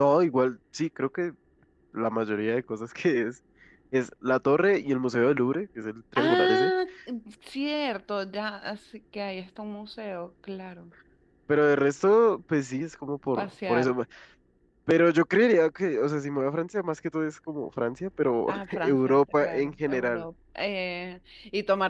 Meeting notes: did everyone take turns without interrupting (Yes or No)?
No